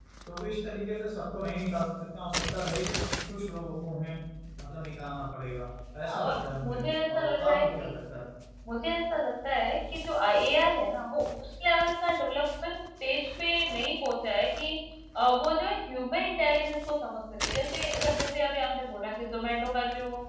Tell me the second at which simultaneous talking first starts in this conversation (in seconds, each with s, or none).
6.1 s